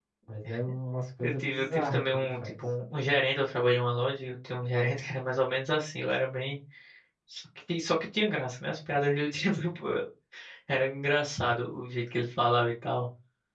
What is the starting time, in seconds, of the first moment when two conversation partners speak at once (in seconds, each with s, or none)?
1.2 s